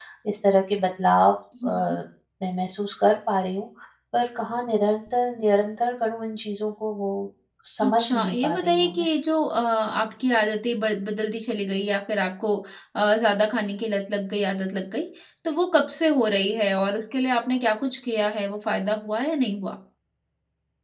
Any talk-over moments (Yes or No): Yes